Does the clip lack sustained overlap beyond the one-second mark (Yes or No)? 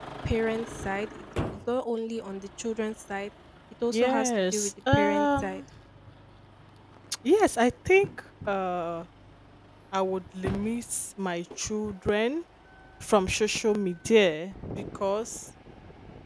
No